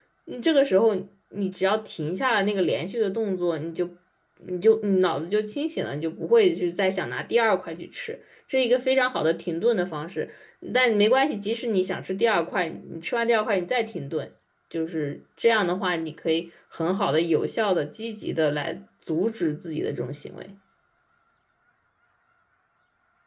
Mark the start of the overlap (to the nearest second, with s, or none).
none